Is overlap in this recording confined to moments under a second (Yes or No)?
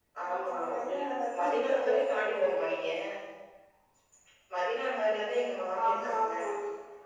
No